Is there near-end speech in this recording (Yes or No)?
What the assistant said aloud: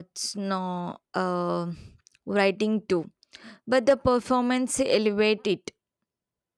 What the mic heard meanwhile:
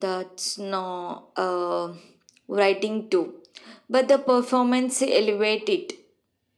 No